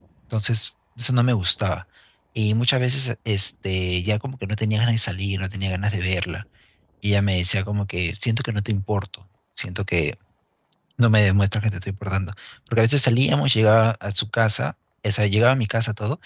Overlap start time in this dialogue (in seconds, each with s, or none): none